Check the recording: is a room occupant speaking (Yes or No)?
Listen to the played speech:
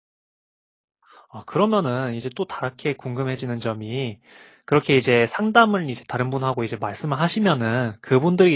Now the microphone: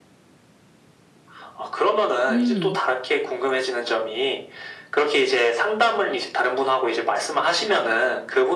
Yes